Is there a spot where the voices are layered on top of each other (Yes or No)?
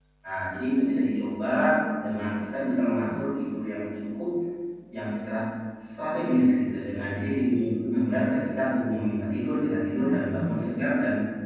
Yes